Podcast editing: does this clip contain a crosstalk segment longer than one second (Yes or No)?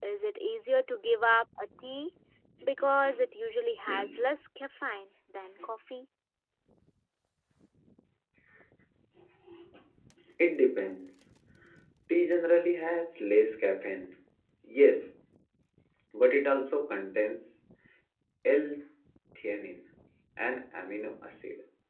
No